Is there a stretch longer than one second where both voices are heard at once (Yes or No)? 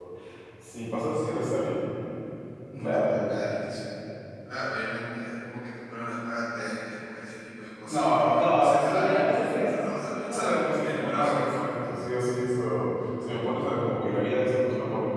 Yes